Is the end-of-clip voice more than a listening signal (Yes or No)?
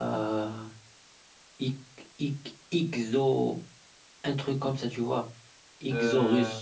No